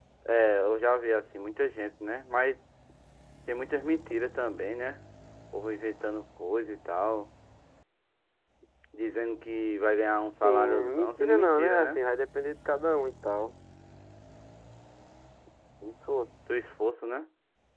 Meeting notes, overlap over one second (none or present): present